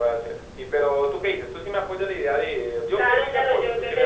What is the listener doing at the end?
taking over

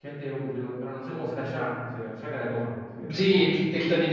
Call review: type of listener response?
taking over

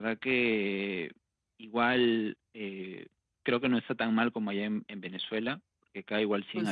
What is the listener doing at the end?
listening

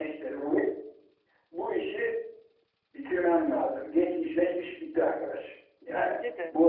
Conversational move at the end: listening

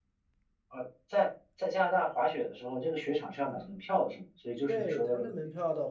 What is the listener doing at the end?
taking over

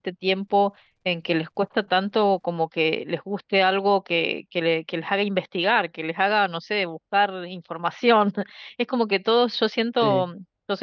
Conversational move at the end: listening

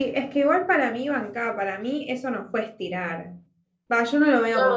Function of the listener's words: listening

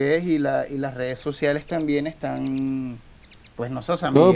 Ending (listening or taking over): listening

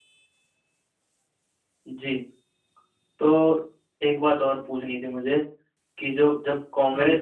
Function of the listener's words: listening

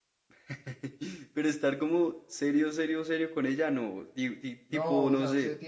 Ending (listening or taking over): taking over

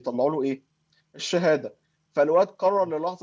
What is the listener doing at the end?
listening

